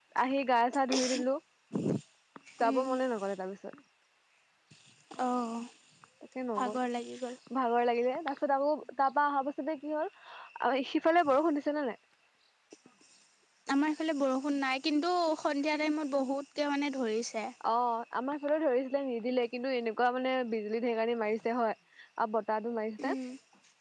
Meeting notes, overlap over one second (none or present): none